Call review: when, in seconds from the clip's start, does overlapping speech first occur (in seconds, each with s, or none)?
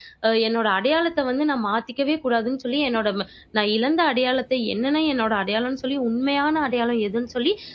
none